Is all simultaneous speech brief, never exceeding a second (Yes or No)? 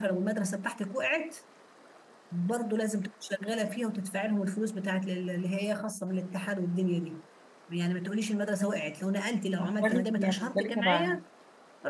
No